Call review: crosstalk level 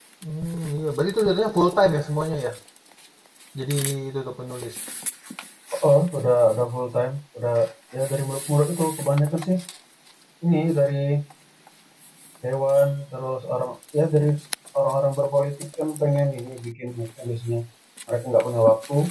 none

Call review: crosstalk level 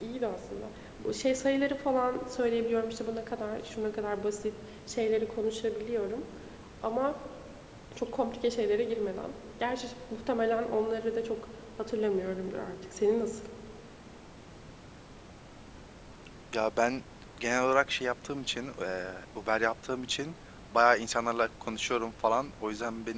none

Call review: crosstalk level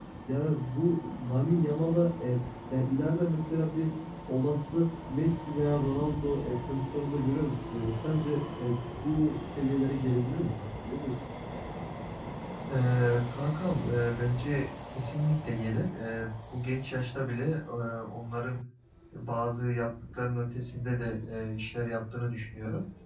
none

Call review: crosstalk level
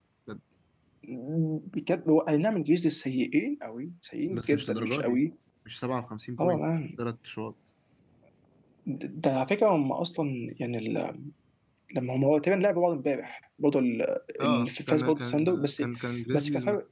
present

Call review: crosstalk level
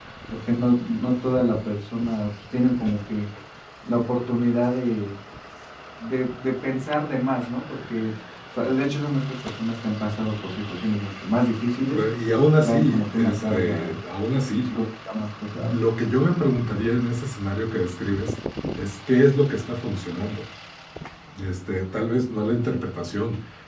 present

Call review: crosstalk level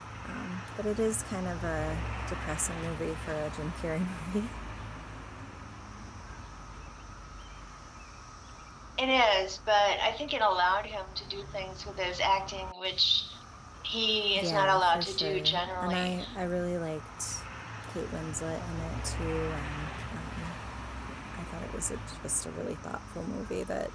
present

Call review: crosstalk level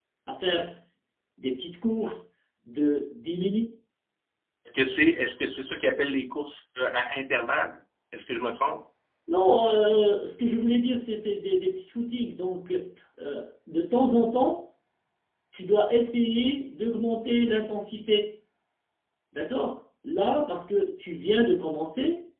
none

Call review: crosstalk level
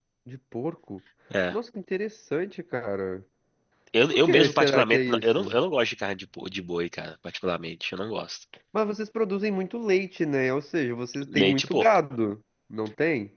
present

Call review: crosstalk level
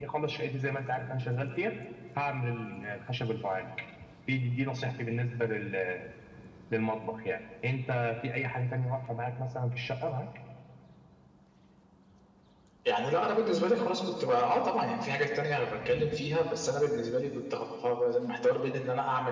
none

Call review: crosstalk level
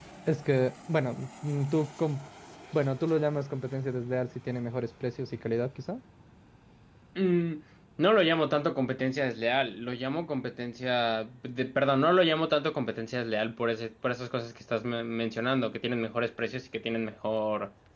none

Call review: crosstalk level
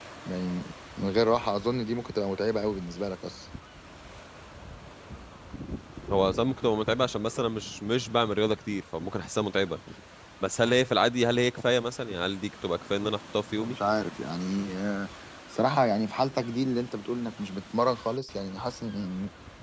none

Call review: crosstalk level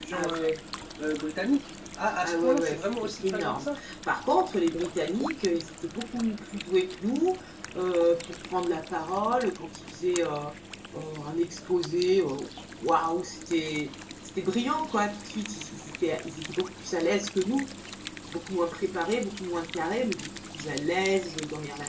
present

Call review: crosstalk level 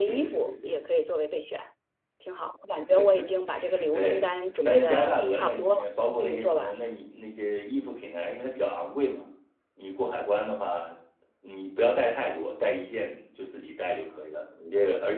present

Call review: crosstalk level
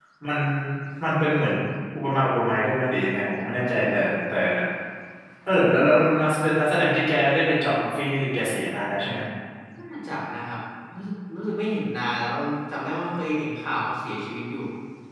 none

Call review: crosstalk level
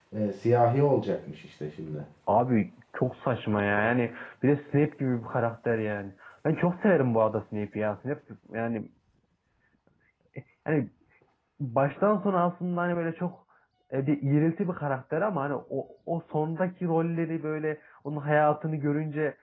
none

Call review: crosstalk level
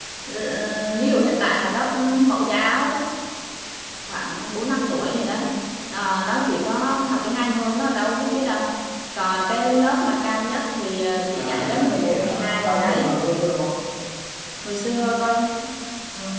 present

